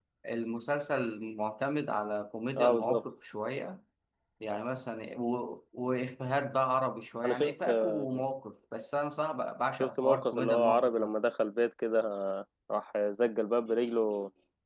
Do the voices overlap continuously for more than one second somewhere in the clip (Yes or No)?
Yes